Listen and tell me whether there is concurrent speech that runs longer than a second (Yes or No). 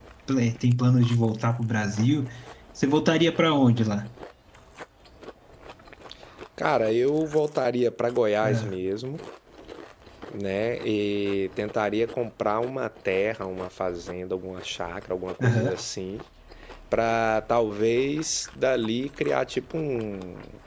No